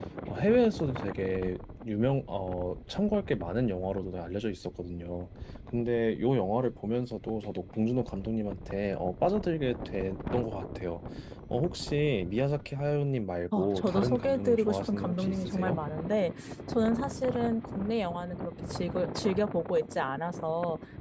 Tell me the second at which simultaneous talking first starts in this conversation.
13.5 s

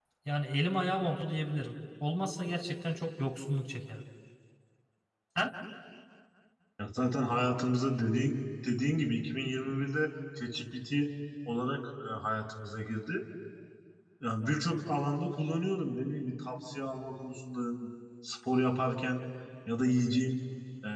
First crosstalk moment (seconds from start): none

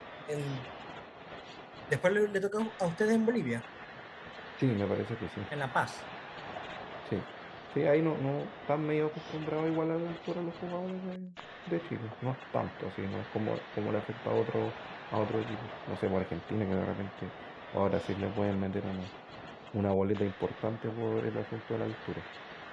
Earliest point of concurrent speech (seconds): none

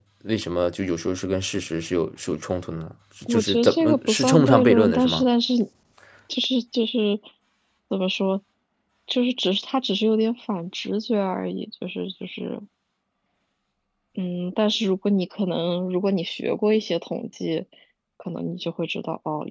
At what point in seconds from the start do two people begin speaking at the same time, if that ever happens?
3.3 s

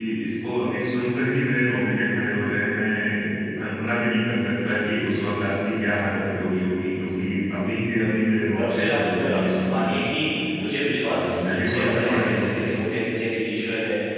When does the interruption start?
8.6 s

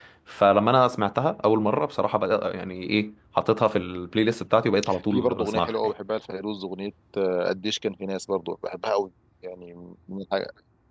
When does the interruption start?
4.6 s

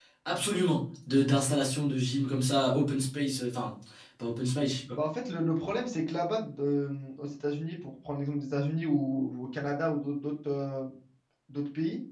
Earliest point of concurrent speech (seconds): none

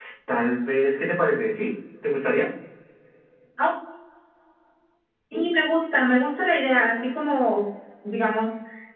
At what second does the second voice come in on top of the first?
none

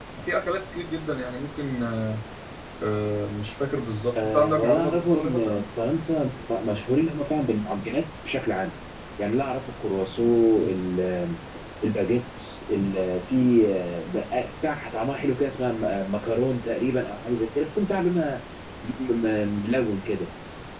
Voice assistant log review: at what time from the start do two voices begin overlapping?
4.2 s

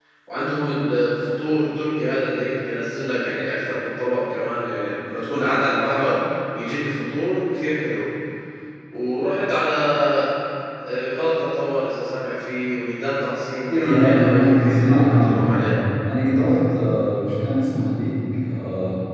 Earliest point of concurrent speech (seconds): 13.7 s

